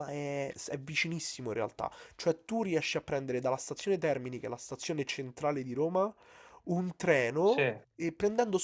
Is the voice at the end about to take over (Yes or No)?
No